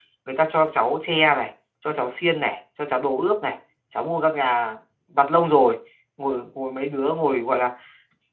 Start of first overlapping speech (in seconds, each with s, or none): none